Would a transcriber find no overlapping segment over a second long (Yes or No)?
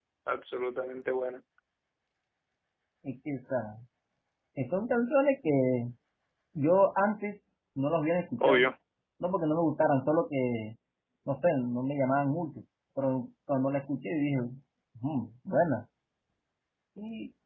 Yes